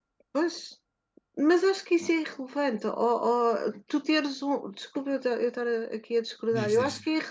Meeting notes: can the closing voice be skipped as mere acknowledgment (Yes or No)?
Yes